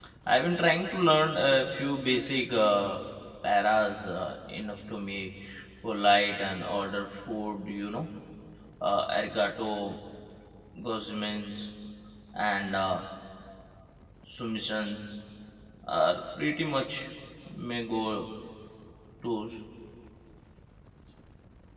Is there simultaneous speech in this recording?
No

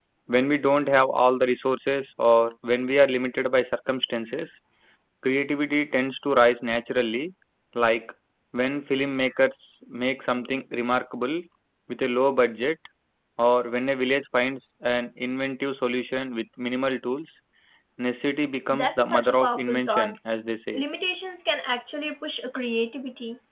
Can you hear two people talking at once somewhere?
Yes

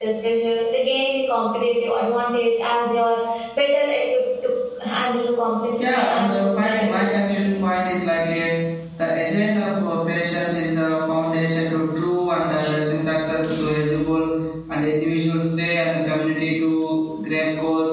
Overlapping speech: Yes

